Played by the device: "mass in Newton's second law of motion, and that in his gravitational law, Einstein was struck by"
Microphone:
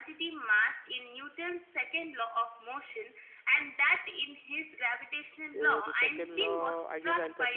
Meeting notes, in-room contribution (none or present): present